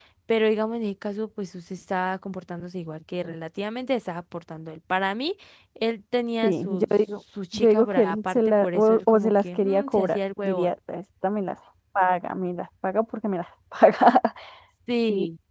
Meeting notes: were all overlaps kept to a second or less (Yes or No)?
No